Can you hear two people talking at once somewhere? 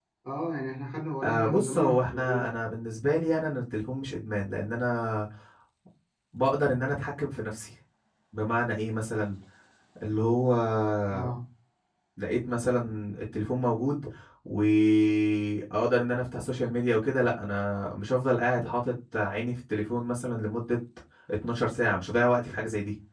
Yes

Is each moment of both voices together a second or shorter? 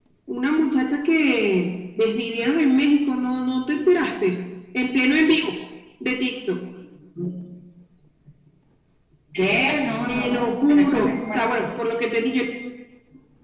No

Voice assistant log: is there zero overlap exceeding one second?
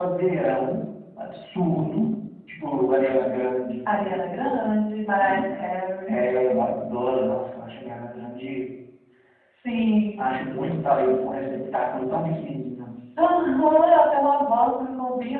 Yes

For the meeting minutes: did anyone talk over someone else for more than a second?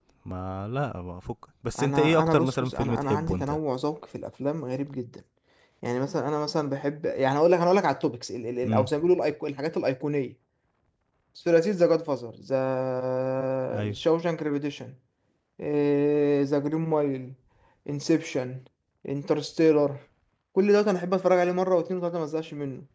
Yes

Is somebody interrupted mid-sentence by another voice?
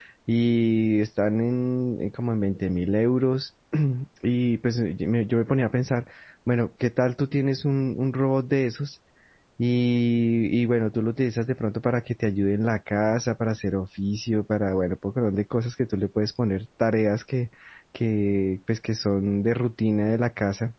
No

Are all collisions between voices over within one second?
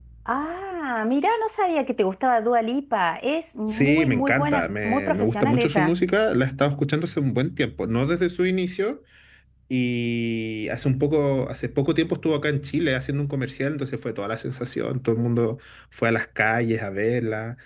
No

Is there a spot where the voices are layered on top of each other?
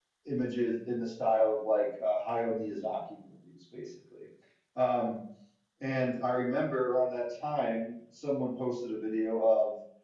No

